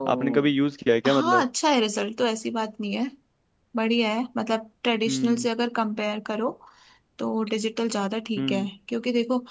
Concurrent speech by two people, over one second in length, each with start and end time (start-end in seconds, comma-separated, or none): none